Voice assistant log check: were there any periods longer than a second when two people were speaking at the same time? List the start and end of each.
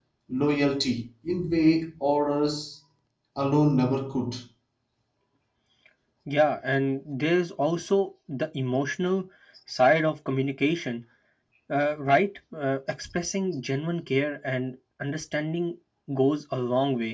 none

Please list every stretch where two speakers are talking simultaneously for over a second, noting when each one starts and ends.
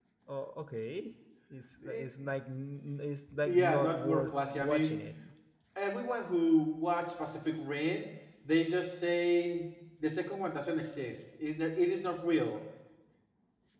3.4-4.9

